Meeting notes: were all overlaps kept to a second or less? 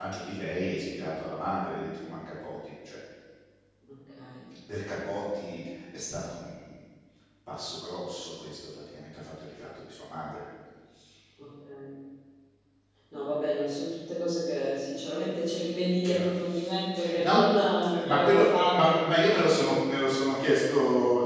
No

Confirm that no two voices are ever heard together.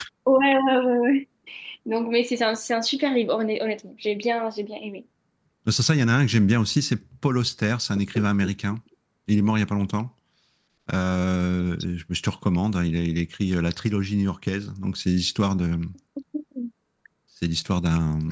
Yes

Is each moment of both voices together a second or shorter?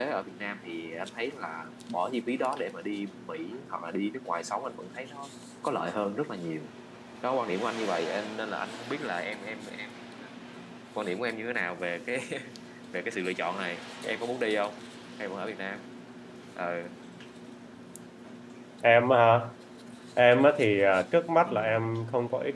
Yes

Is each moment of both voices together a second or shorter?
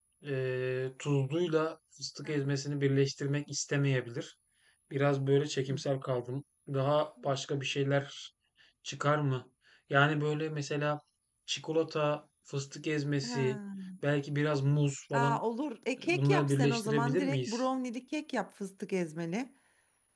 No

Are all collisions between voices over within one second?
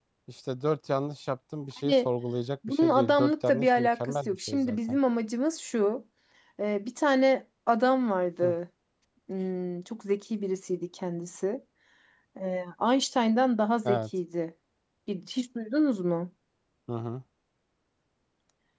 No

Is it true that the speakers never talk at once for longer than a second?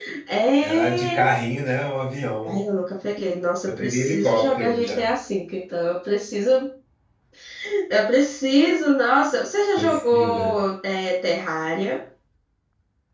No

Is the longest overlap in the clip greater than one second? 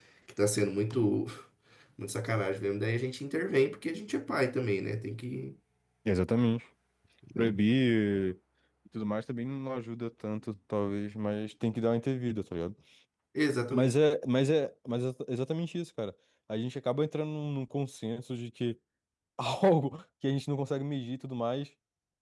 No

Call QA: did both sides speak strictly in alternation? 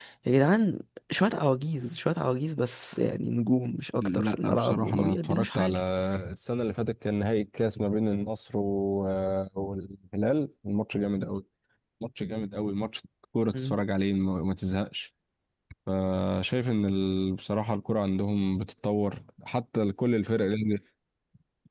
No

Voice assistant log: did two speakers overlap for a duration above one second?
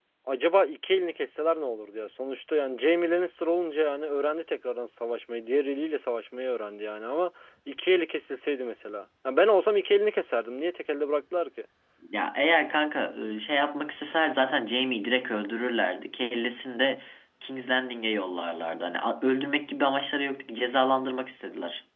No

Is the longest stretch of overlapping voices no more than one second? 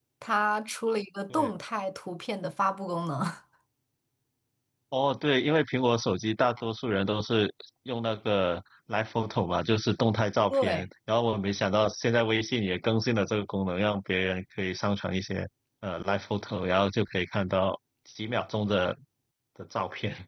Yes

